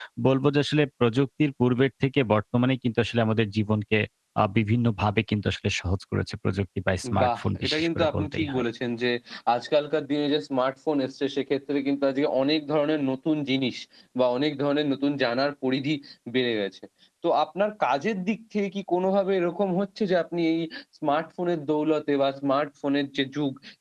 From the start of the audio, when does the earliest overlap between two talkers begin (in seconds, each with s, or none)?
7.0 s